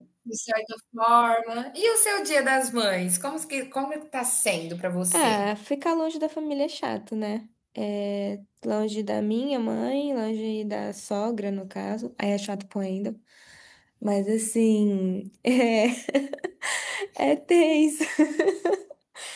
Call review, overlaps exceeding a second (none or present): none